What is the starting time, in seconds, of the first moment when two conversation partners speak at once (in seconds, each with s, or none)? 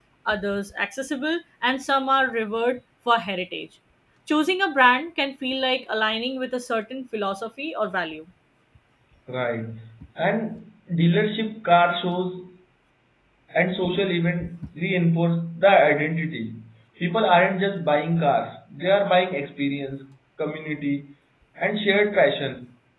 none